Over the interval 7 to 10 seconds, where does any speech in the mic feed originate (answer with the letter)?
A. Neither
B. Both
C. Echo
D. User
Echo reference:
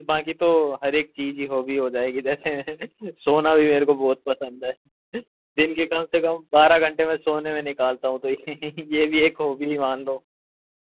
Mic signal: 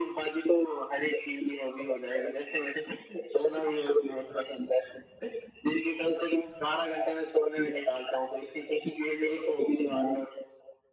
C